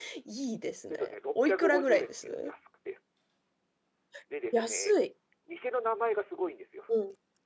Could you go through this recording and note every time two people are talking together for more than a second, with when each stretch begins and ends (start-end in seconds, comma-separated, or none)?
0.9-2.5